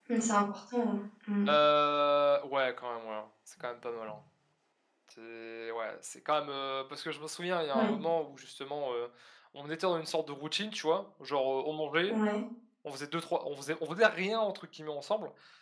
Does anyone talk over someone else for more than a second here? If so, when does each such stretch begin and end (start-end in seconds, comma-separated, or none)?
none